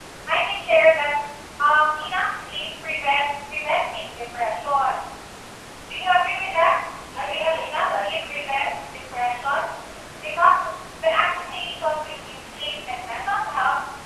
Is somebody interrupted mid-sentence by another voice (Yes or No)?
Yes